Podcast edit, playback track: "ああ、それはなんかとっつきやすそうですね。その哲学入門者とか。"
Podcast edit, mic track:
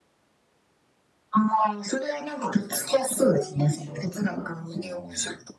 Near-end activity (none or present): present